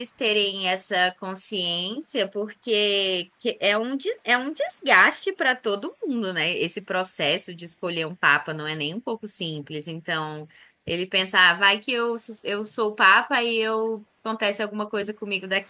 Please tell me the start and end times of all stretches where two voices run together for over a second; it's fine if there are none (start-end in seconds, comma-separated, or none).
none